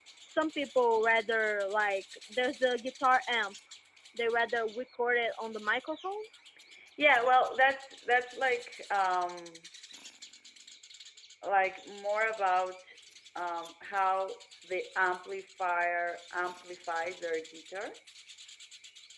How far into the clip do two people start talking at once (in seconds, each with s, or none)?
none